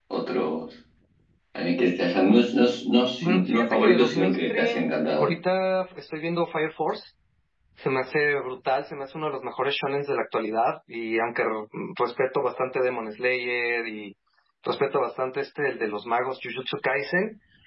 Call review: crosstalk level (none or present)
present